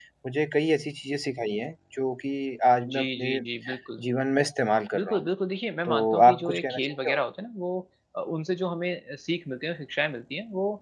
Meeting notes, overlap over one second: present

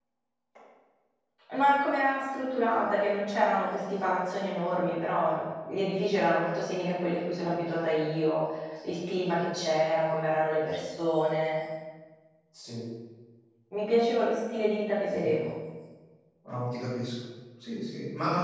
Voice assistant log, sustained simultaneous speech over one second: none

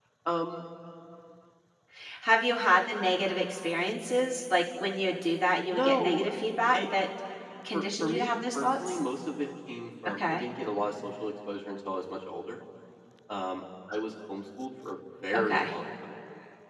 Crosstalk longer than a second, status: present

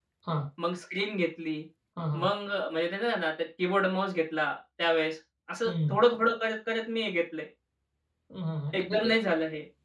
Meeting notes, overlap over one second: none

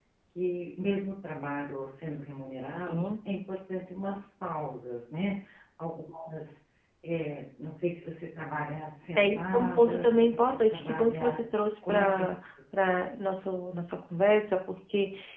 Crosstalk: present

